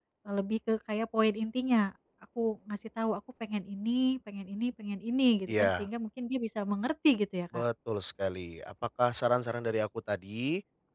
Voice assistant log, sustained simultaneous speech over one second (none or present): none